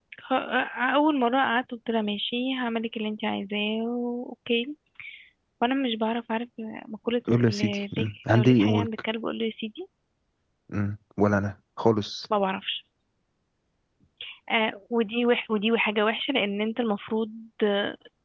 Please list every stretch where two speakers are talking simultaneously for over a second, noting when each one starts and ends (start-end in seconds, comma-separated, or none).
7.3-8.9